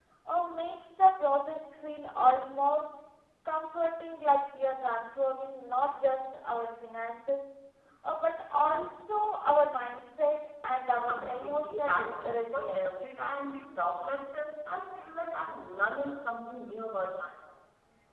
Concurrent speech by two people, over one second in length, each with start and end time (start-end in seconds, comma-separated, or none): 10.9-13.0